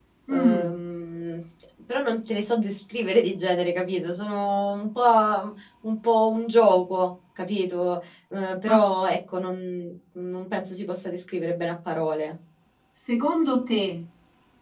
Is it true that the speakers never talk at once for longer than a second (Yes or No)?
Yes